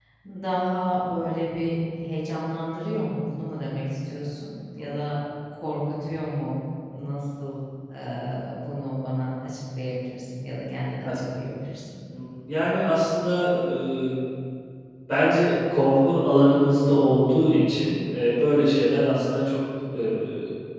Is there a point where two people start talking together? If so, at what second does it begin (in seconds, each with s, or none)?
none